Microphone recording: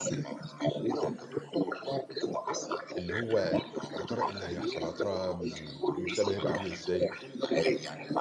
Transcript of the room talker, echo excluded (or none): اللي هو يا ترى إيه اللي هيحصل، يا ترى م المستقبل هيبقى عامل إزاي،